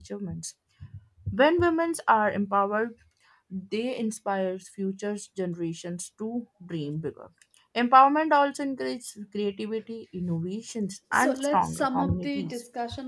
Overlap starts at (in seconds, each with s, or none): 11.1 s